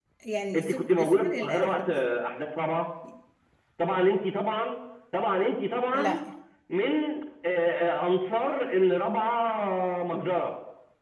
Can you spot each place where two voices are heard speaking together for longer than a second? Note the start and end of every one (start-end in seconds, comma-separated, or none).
0.6-2.0